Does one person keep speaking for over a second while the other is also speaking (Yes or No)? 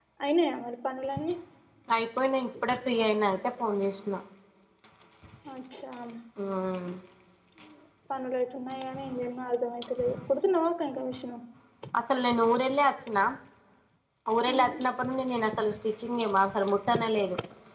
No